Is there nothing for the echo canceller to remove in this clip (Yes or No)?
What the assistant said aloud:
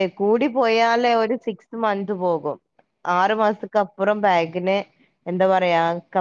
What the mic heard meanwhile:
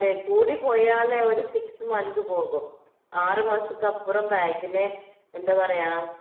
No